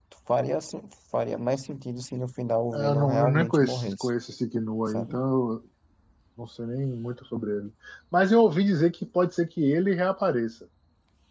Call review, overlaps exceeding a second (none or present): present